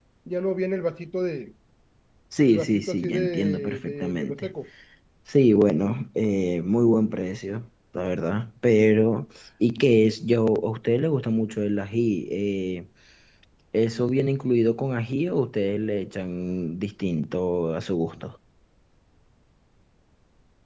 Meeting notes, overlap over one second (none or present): present